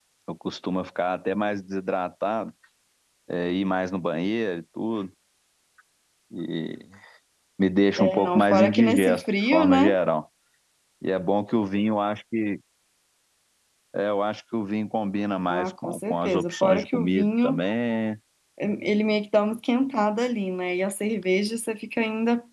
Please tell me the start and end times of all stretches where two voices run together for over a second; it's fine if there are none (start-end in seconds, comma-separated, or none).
8.0-10.0, 15.5-17.6